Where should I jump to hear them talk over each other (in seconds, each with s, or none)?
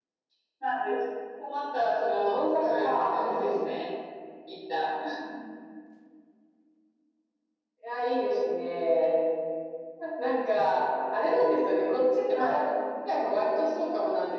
2.2 s